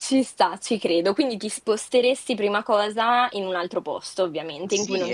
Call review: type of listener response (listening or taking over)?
taking over